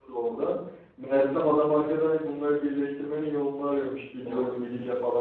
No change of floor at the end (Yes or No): Yes